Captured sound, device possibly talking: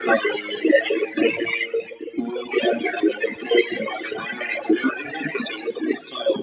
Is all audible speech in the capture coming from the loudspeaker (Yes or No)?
Yes